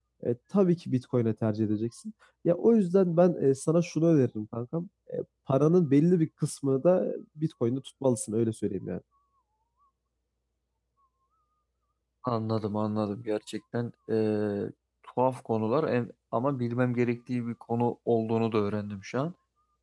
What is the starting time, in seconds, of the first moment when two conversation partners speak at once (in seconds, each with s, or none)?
none